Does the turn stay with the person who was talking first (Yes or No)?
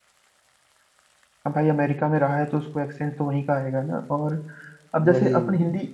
Yes